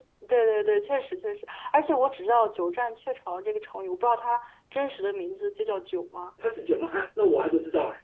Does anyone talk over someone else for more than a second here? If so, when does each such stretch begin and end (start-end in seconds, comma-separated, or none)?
none